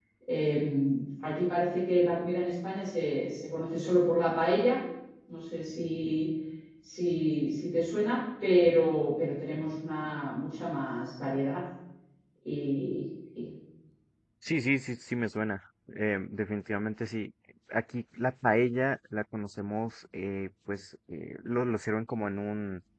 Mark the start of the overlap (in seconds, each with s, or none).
none